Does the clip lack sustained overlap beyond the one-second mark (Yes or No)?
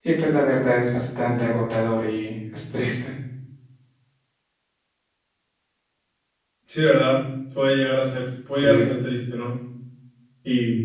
Yes